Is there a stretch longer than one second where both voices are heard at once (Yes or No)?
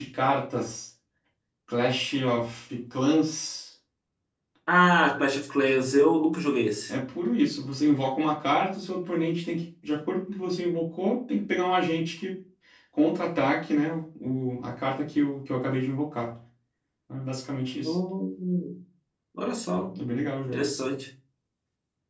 No